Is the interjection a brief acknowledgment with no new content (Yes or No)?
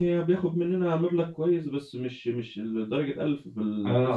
No